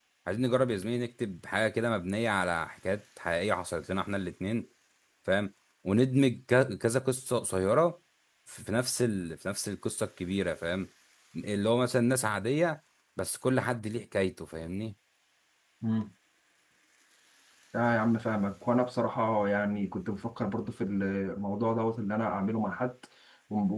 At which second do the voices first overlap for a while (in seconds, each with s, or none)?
none